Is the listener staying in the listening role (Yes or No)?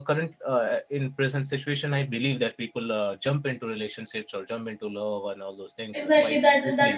No